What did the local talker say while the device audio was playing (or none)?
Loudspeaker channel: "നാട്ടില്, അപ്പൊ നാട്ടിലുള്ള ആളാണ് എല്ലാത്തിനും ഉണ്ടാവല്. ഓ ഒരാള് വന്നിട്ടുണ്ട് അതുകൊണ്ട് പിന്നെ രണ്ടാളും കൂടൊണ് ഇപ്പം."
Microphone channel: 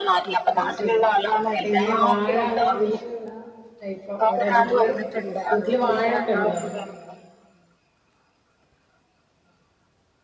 അത് ശരി, എങ്ങനെ വാഴ അതൊക്കെ കൃഷി ചെയണ. ഇപ്പൊ അവിടെ വീട്ടില്, വീട്ടില് വാഴൊക്കെ ഇണ്ടാ.